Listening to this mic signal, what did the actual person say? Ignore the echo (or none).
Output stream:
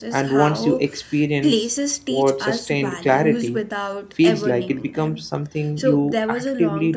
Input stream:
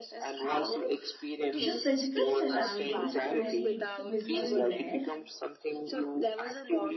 The physical surroundings carried visible wear,